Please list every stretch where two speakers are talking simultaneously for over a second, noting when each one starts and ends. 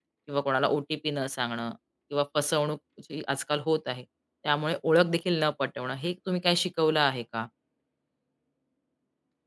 none

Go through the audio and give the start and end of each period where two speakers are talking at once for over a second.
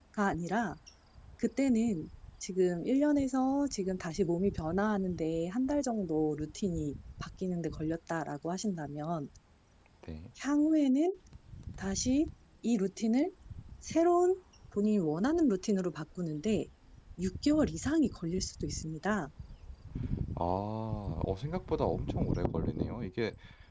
none

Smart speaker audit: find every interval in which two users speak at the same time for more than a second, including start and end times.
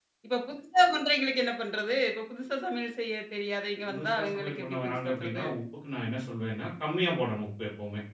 3.9-5.4

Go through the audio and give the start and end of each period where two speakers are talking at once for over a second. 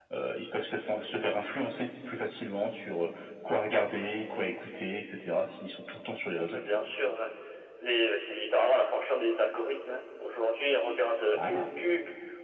none

